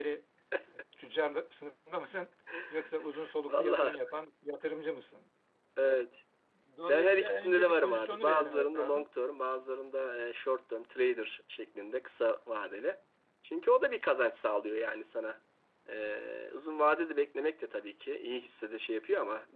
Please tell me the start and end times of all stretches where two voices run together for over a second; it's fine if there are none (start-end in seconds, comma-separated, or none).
6.9-9.0